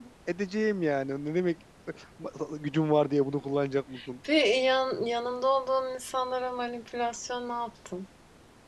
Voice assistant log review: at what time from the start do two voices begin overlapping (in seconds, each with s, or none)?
none